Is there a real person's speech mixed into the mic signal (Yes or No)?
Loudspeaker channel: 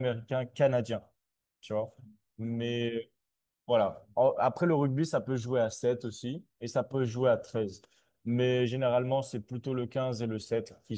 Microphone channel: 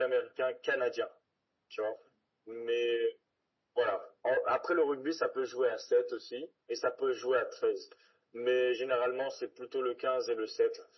No